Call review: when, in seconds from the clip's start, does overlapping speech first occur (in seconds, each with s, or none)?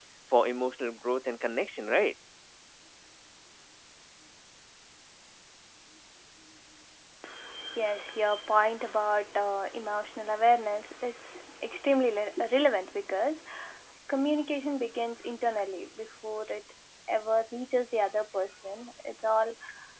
none